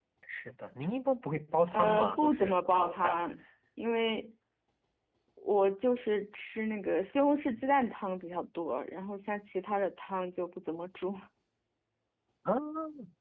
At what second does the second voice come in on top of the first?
1.7 s

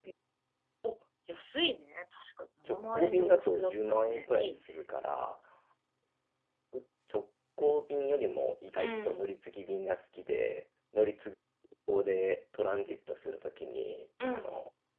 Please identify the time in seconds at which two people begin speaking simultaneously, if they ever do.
2.7 s

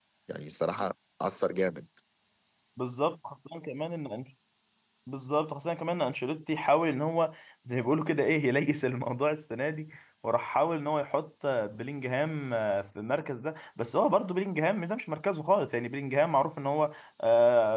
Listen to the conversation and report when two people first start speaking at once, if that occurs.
none

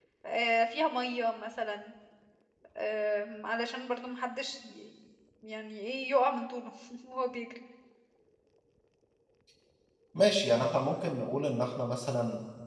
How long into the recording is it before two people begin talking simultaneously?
none

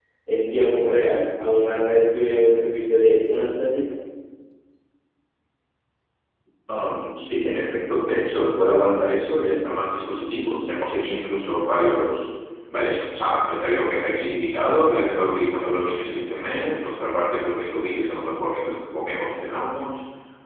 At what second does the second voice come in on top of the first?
none

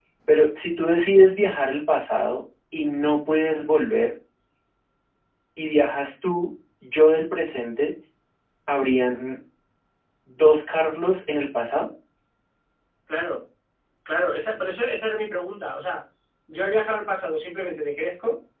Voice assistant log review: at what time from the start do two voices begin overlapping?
none

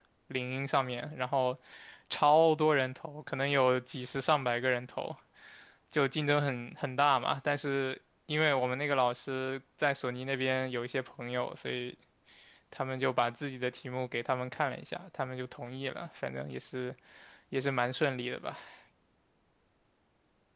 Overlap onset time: none

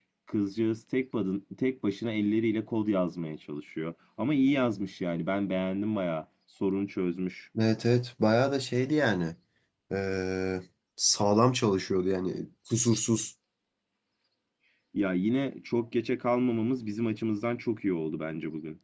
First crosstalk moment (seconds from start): none

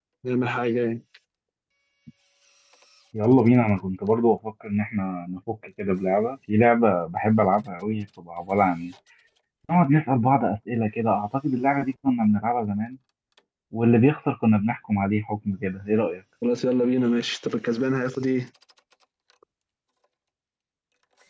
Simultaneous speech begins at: none

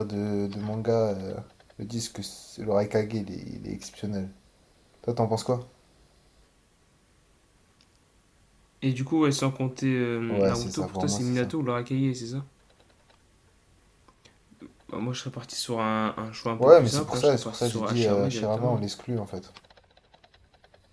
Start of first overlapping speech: 10.3 s

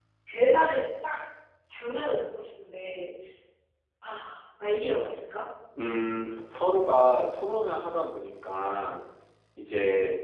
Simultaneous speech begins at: none

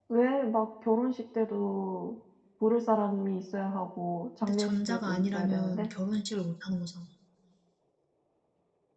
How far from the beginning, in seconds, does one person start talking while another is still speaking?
4.4 s

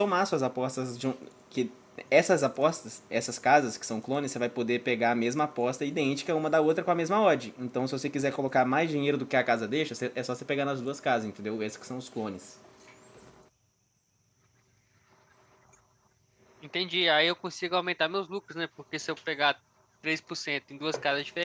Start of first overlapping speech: none

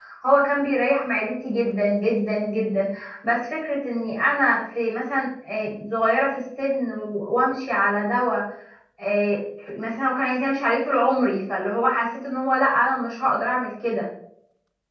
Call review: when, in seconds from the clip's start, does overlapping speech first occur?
none

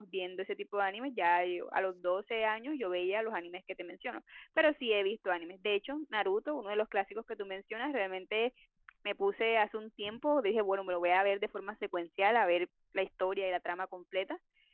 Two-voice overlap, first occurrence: none

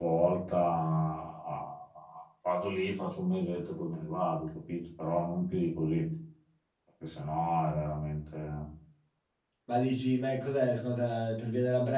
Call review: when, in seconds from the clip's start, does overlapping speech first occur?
none

